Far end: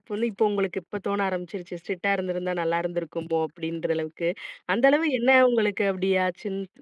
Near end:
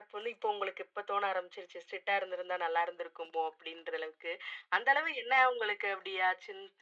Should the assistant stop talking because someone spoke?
No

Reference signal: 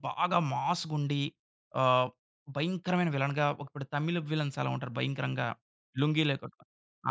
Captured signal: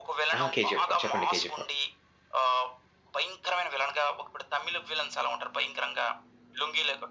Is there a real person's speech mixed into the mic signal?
Yes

